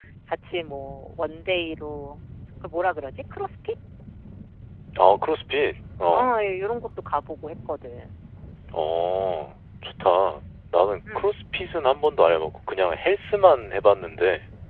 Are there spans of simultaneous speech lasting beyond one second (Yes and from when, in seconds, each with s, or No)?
No